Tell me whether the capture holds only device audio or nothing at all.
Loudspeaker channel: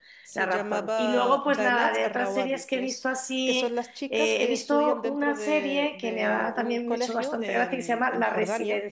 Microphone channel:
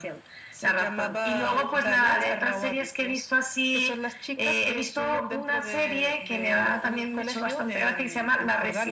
No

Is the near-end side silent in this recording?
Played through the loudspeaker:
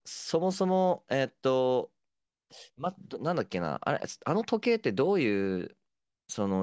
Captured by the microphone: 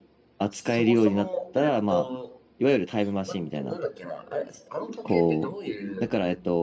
No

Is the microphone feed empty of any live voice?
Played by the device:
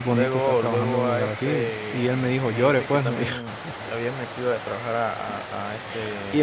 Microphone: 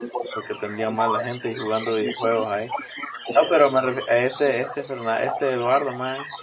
No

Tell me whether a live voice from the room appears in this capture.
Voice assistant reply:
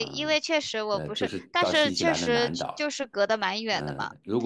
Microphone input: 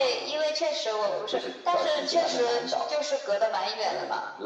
No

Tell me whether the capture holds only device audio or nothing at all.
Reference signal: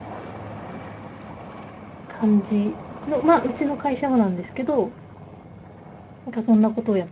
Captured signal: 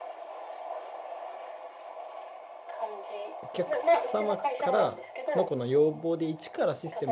No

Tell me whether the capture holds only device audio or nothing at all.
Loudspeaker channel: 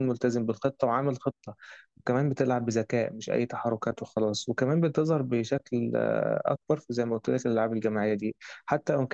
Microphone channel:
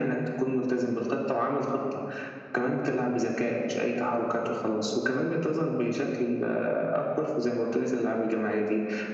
Yes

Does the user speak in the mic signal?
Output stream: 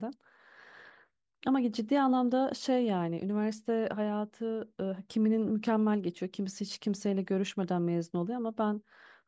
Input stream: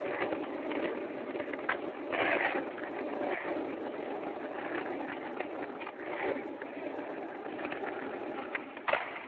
No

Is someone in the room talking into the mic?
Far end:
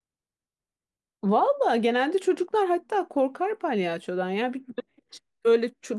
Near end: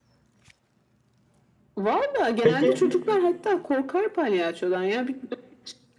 Yes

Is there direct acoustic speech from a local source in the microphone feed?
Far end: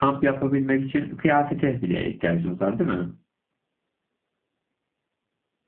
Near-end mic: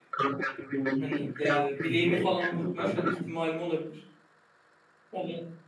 Yes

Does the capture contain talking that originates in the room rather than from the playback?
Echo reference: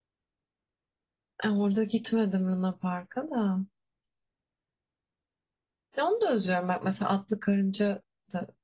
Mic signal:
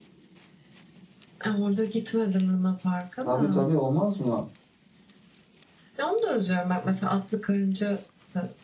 Yes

